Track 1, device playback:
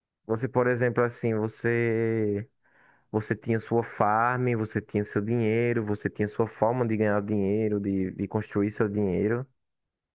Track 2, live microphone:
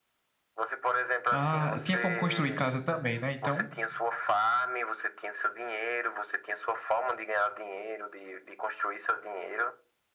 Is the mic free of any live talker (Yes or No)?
No